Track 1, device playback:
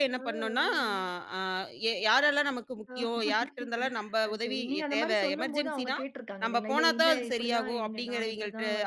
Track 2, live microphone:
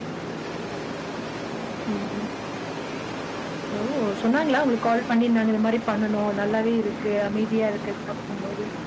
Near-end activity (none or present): present